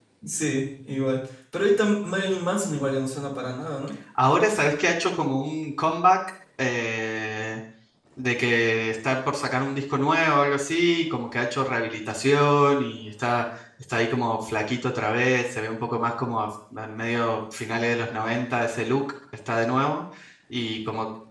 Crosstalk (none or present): none